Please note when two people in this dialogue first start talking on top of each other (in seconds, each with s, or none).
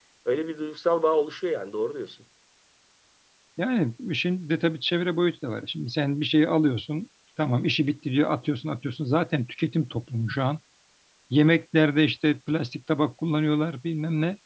none